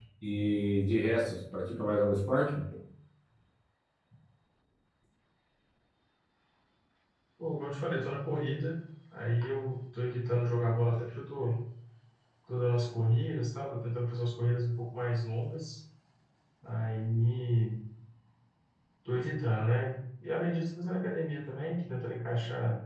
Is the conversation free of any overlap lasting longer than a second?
Yes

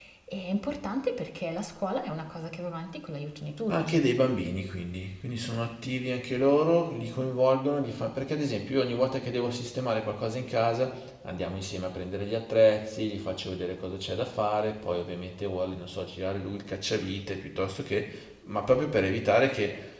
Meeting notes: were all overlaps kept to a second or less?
Yes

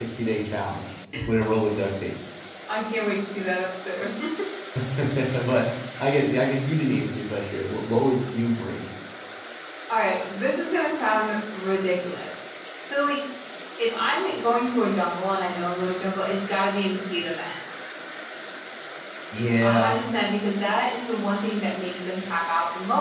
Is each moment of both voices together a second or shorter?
Yes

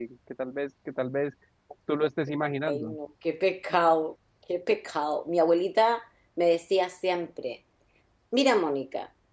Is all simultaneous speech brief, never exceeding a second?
Yes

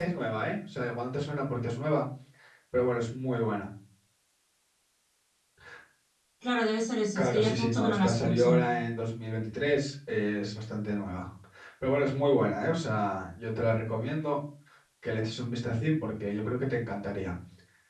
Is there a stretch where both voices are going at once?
Yes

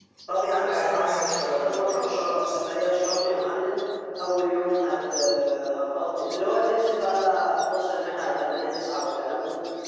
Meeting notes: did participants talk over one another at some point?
Yes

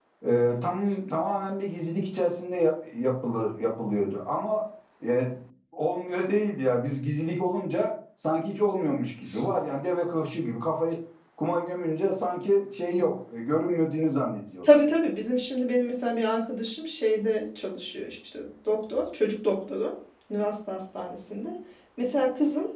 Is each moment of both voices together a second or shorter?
Yes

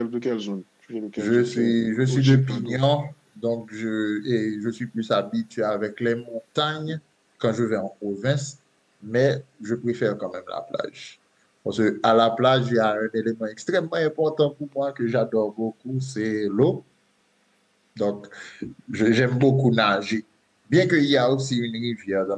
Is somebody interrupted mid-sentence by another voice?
Yes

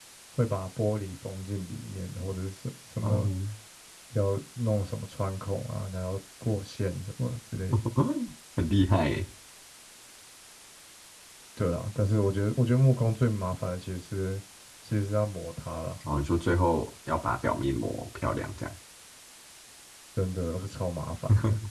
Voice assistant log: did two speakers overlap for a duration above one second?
No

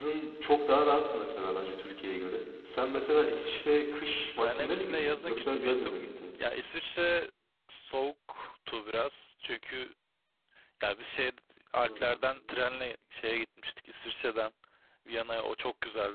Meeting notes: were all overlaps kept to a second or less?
No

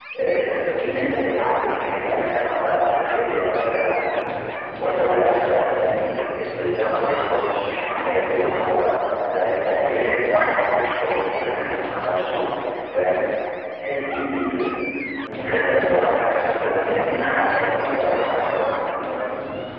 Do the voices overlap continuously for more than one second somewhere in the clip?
Yes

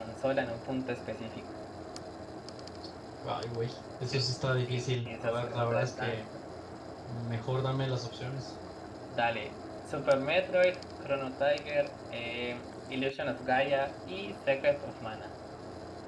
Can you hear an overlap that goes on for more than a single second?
Yes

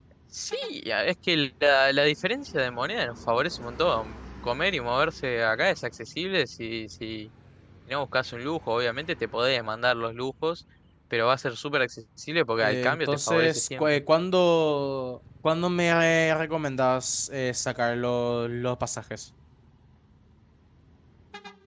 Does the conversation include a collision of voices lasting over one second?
Yes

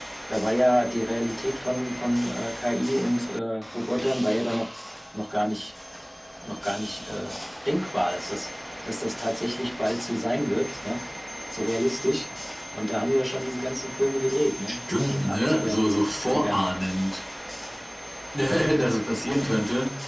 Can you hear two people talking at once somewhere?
Yes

